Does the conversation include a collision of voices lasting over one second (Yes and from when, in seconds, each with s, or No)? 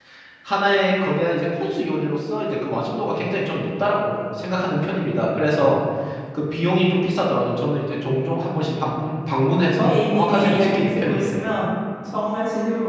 Yes, from 9.8 s